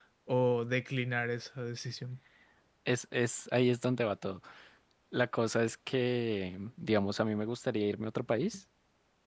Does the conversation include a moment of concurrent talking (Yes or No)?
No